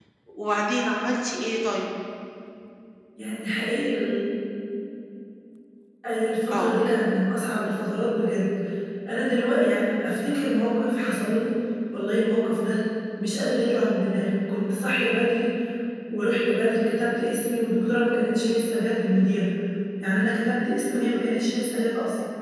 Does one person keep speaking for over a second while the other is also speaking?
No

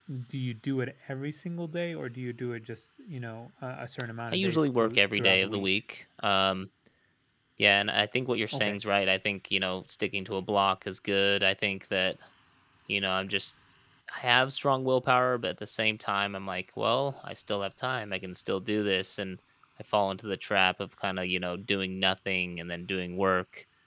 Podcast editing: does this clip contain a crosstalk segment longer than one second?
Yes, from 4.3 s

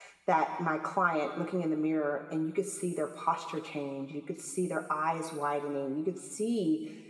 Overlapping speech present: No

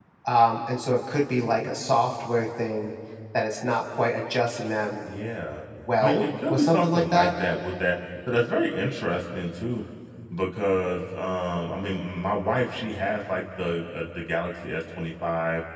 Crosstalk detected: Yes, from 6.0 s

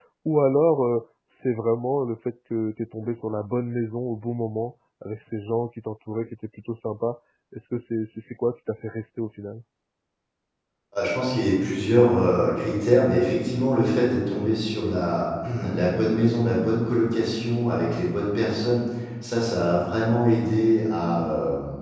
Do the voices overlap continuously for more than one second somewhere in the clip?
No

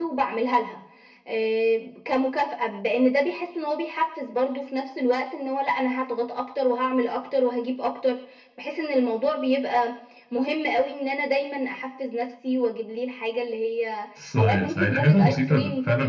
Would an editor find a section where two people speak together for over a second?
Yes, from 14.2 s

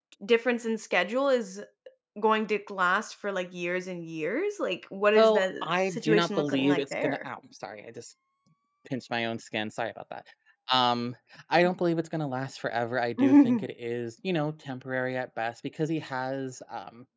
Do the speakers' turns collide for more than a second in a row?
Yes, from 5.2 s

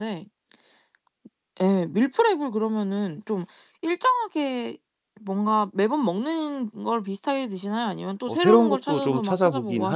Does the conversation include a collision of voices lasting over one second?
Yes, from 8.3 s

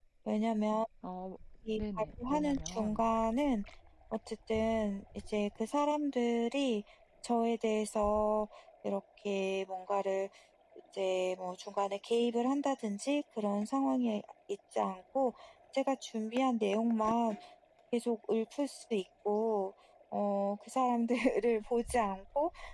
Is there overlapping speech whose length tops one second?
Yes, from 1.8 s

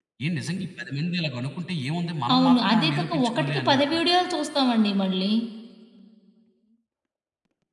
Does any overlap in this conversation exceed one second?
Yes, from 2.3 s

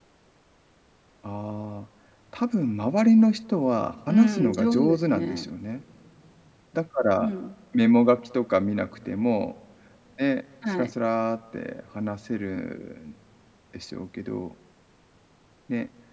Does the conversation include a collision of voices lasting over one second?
Yes, from 4.1 s

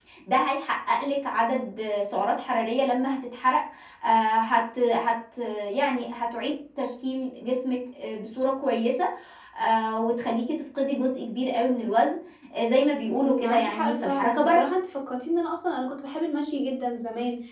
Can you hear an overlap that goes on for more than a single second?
Yes, from 13.1 s

